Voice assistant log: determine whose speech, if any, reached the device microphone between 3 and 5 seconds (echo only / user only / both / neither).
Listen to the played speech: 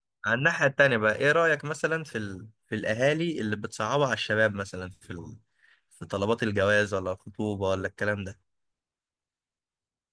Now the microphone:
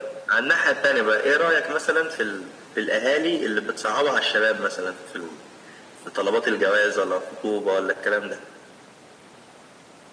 echo only